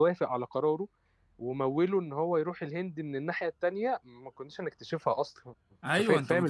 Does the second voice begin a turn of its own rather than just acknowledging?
Yes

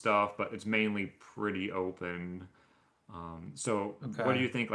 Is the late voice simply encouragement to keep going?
Yes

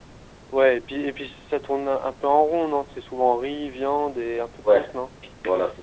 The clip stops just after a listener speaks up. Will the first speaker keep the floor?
No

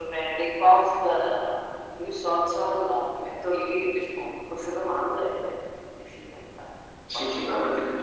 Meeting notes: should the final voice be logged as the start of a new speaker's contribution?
Yes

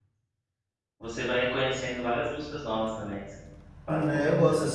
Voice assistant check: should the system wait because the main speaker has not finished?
No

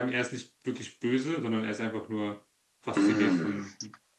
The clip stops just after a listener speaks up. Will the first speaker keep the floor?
No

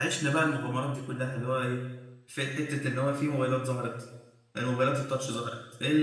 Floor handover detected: No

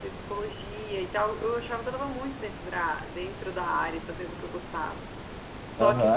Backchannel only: No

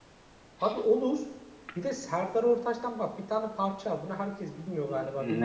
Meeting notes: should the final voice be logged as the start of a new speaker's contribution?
No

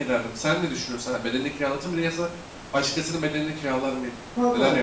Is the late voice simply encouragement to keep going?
No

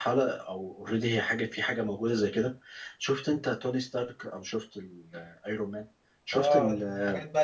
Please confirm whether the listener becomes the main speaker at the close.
Yes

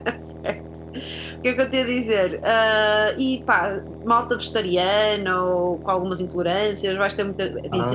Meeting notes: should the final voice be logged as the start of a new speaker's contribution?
Yes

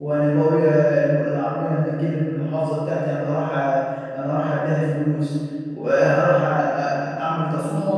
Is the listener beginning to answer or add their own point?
No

